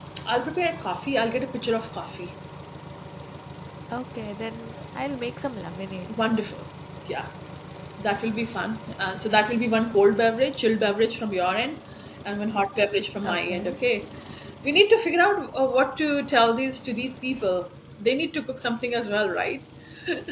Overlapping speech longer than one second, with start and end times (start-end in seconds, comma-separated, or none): none